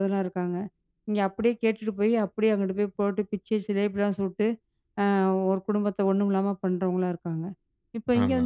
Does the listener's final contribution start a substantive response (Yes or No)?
No